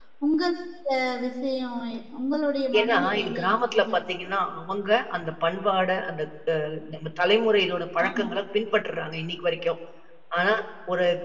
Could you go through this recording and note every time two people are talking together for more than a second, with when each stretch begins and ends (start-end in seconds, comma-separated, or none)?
2.8-4.3